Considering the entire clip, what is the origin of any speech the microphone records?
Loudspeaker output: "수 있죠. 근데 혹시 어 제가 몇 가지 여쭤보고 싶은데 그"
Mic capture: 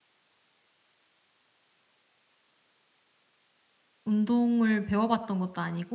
user only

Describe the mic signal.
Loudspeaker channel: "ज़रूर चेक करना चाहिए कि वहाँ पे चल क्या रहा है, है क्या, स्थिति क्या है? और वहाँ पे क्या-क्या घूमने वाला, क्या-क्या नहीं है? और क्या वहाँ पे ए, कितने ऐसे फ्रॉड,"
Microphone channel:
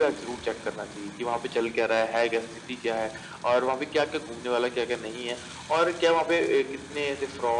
echo only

